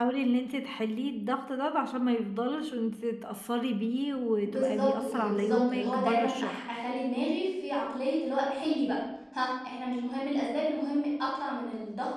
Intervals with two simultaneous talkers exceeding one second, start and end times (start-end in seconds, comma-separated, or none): 4.5-6.6